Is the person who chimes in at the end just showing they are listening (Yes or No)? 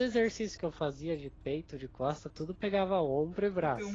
No